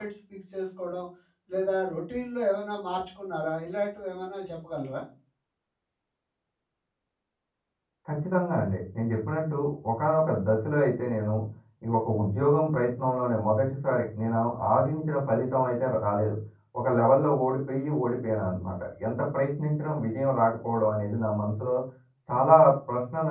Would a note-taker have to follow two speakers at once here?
No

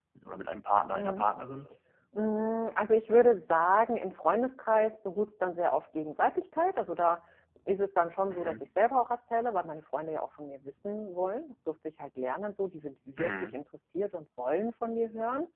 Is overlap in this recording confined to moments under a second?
Yes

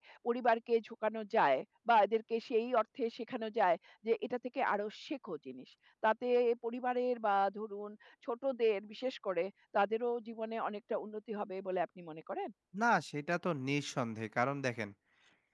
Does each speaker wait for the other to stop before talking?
Yes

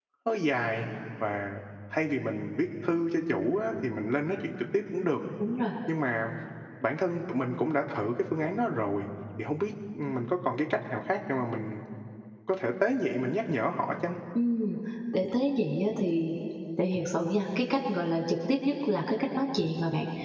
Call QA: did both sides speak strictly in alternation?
Yes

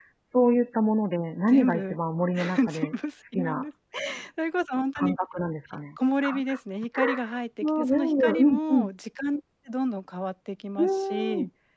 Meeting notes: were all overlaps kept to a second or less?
No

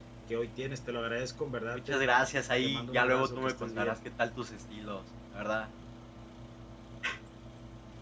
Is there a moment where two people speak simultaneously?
Yes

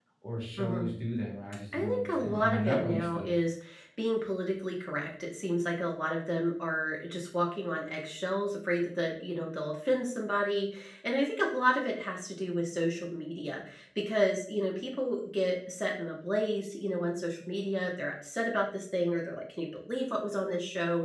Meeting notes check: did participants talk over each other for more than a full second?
Yes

